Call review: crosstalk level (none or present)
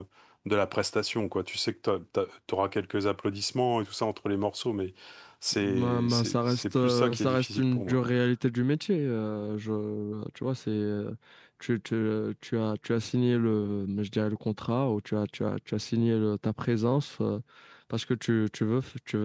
present